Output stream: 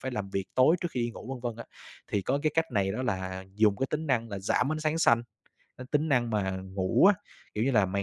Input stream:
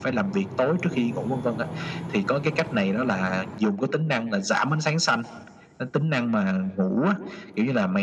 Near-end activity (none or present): none